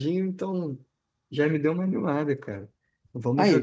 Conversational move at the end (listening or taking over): listening